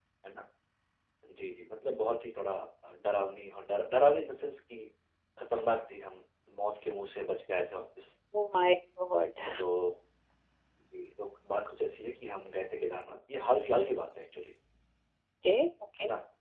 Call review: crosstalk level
none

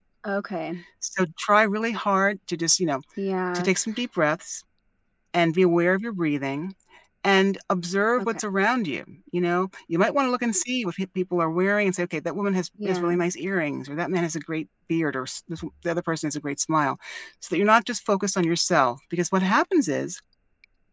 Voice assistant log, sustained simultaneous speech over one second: none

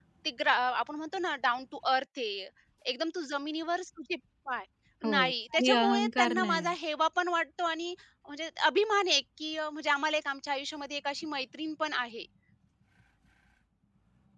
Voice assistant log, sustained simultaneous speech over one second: present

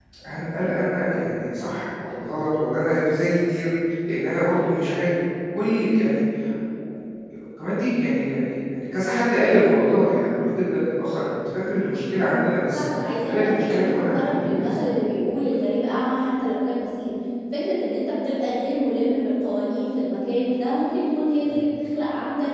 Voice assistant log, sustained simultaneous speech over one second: present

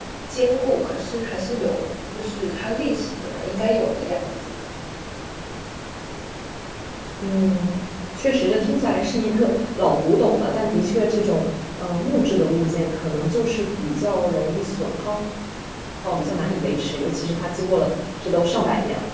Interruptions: none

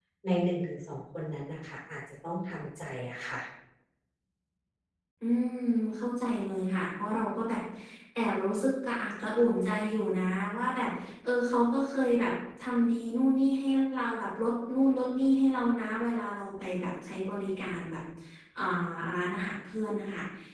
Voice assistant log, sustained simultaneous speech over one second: none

